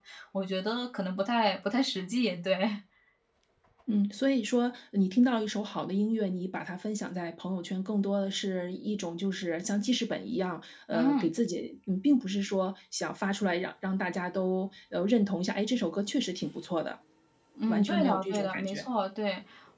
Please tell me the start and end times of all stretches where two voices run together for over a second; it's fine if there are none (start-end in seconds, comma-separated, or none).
17.7-18.9